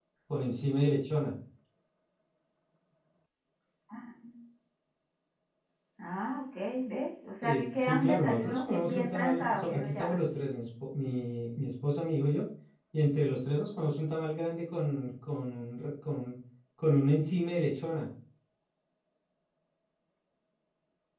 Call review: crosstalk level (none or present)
present